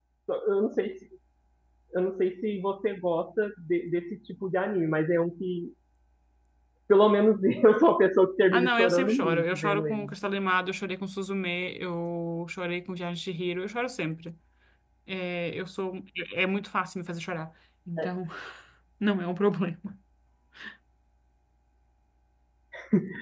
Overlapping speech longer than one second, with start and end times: 8.5-10.1

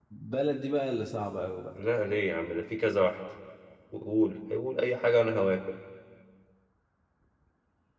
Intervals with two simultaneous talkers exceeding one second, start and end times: none

